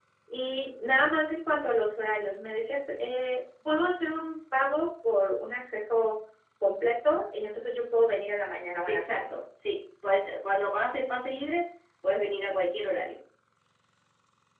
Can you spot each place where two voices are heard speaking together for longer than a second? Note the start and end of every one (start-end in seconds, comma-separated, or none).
none